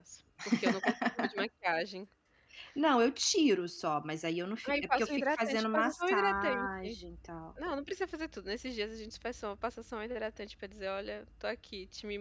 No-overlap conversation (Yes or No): No